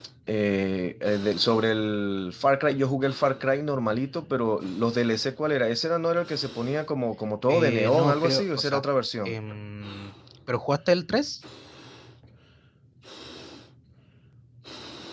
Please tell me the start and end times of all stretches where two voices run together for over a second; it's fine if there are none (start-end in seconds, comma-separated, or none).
7.5-8.8